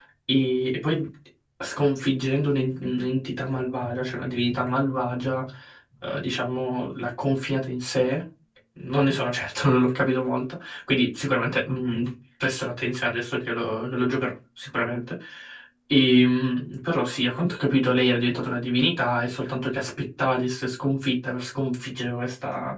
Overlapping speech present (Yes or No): No